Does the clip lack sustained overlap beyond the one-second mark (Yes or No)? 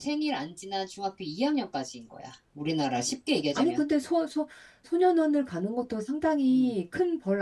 Yes